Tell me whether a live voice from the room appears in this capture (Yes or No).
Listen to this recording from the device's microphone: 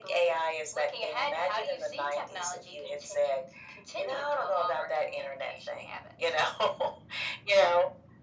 No